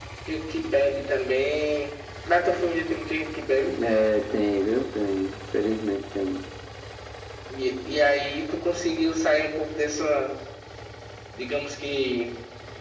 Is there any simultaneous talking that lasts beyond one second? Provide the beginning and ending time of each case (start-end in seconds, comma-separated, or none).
none